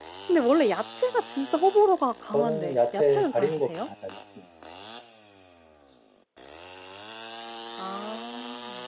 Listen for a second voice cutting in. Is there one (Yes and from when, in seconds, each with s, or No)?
Yes, from 2.3 s